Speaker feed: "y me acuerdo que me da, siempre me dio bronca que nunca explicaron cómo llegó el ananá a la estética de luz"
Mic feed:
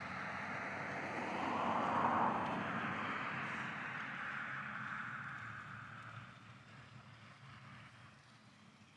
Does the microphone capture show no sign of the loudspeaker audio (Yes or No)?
Yes